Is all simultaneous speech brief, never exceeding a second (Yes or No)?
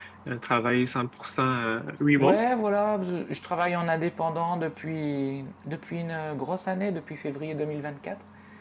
Yes